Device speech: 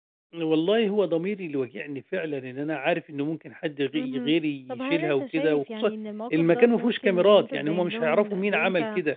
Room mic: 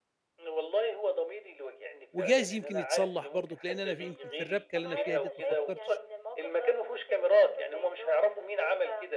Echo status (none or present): present